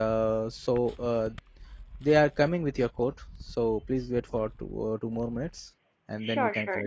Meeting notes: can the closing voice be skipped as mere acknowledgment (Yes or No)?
No